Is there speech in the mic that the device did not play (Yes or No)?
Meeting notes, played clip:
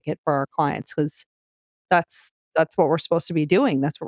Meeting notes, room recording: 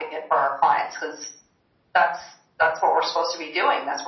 No